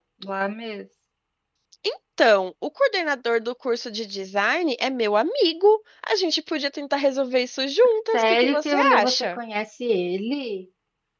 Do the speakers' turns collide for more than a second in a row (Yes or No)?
Yes